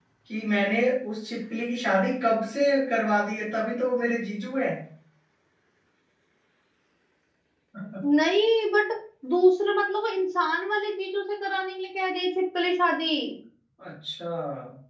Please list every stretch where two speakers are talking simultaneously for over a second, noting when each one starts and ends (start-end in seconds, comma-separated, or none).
none